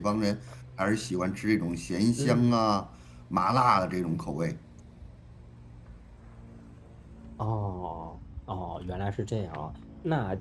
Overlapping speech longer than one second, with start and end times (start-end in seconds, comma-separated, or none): none